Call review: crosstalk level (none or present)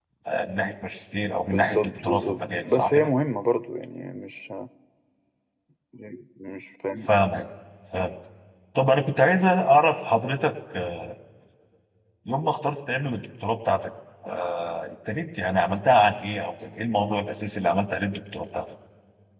present